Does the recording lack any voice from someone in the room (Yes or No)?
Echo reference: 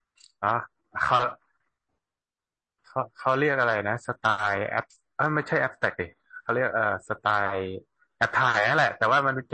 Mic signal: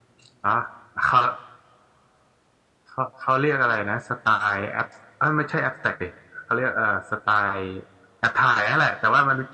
Yes